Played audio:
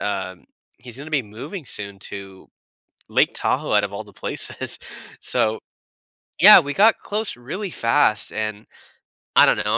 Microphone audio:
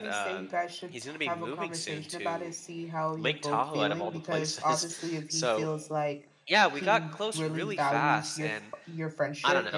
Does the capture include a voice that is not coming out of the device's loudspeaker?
Yes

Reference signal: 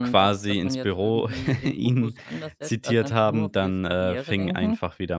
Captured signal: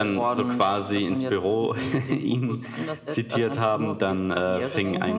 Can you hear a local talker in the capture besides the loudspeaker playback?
No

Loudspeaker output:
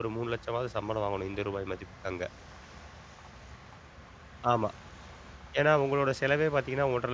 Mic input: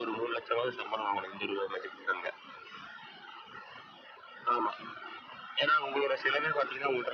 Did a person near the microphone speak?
No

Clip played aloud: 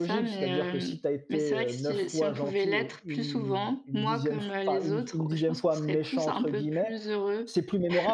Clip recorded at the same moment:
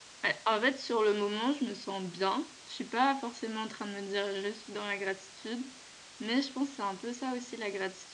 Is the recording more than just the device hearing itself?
Yes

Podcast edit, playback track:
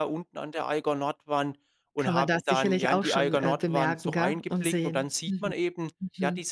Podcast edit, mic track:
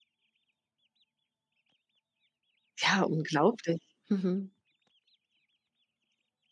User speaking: Yes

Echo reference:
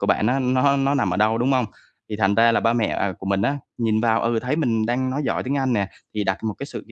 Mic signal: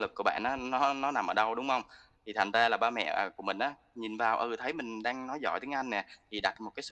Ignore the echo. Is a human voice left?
No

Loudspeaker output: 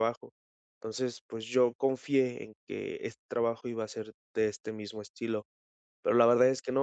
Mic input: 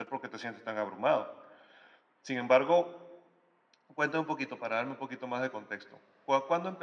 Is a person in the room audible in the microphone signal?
Yes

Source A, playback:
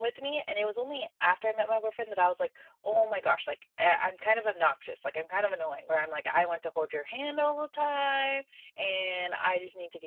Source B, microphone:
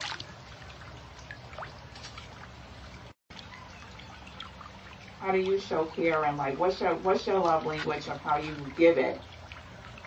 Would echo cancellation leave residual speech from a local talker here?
Yes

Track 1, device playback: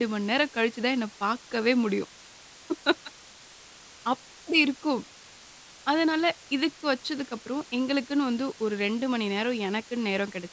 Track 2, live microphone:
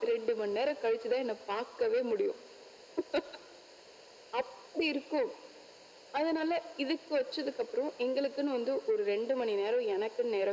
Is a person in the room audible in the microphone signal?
No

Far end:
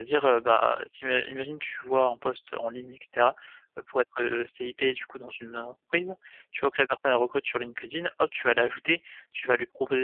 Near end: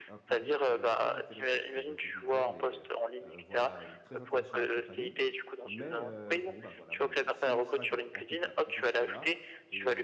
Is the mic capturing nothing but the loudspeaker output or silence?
No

